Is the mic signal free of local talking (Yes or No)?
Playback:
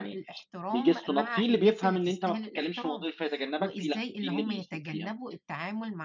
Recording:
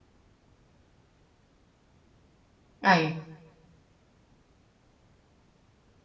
No